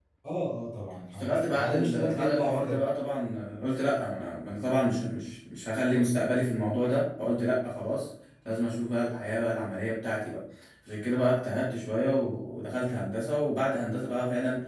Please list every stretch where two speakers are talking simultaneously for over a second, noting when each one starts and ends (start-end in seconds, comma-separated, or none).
1.1-2.9